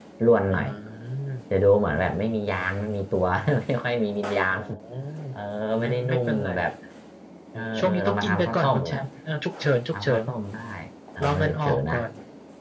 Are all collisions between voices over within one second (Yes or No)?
No